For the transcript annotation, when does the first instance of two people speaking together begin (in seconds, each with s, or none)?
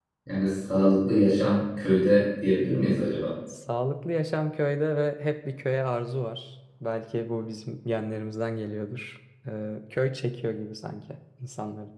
none